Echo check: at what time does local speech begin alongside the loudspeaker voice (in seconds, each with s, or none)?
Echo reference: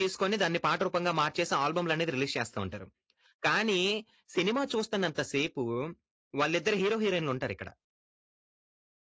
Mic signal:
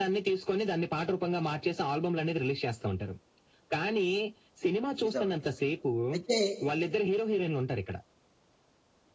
5.0 s